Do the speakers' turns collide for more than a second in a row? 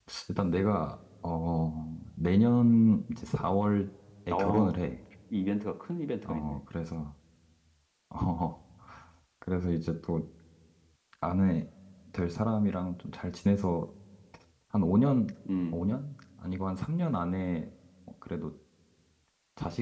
No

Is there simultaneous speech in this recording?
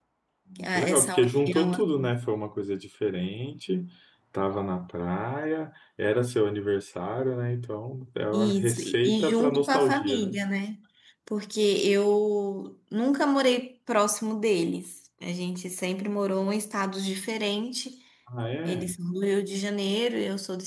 Yes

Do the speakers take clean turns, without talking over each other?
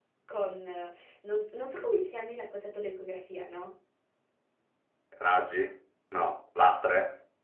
Yes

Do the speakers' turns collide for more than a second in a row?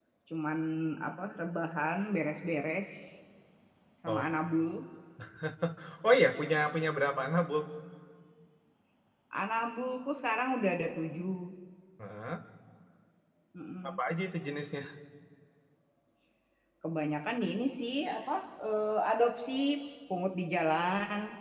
No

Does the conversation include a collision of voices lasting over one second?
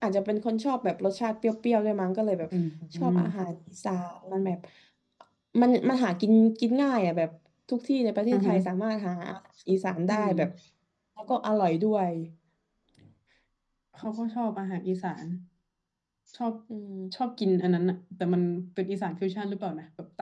No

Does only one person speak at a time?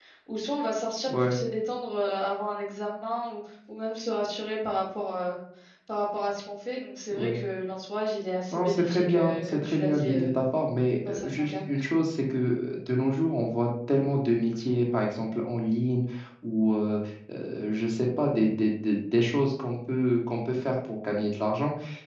No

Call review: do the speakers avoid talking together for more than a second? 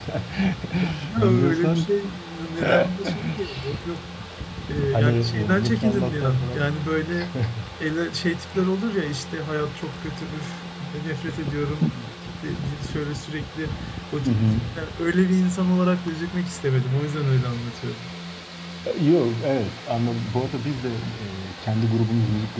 No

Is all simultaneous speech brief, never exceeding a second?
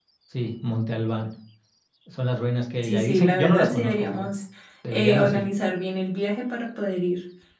No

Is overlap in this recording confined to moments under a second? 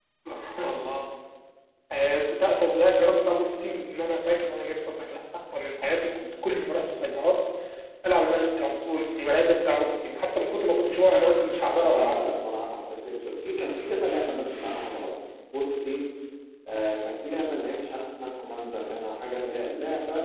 Yes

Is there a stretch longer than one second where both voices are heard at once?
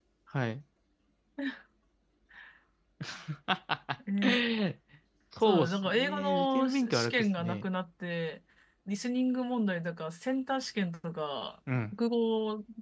Yes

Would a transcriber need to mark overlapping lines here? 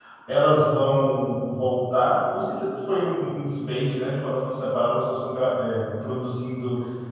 No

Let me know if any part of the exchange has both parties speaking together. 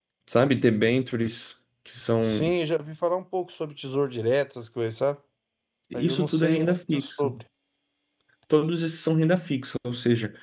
Yes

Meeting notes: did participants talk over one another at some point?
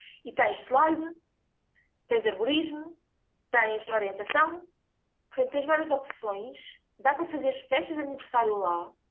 No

